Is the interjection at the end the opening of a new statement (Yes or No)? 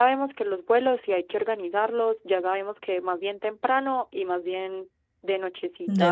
No